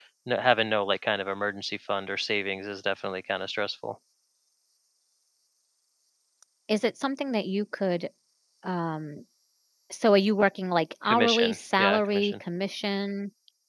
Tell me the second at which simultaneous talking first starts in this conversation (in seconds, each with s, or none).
11.1 s